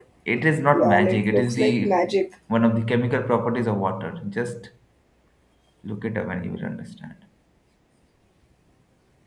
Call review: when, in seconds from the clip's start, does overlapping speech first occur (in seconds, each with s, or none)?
0.7 s